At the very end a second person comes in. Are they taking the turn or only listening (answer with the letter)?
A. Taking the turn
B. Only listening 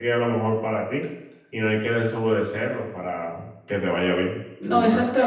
A